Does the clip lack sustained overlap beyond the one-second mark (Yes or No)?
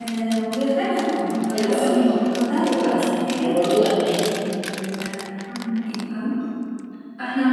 No